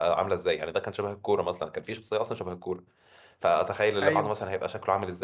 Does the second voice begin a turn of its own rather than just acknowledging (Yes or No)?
No